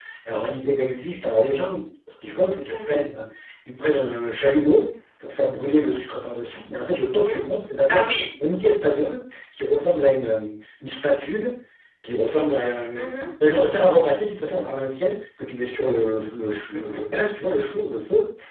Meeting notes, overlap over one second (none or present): none